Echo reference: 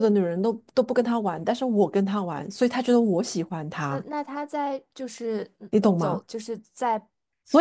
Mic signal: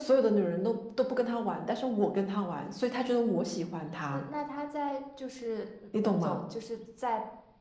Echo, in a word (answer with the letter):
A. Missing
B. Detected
B